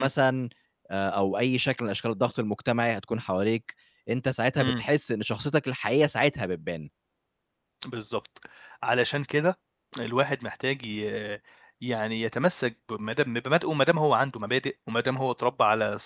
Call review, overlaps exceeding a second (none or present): none